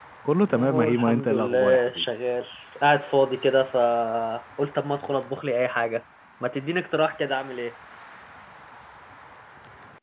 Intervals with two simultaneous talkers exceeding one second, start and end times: 0.5-2.1

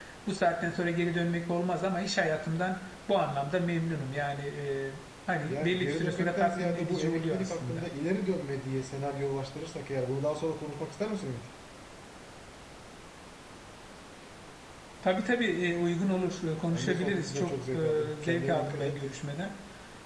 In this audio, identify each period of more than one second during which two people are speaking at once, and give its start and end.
5.5-7.8, 16.7-18.9

